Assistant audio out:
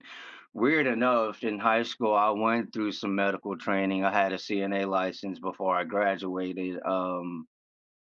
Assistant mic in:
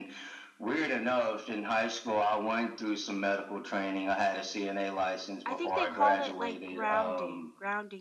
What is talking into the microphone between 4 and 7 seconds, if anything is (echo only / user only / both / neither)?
both